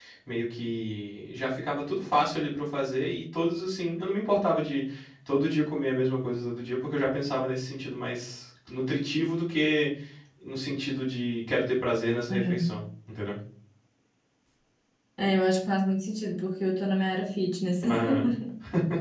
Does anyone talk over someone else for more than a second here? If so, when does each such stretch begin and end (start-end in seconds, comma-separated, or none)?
none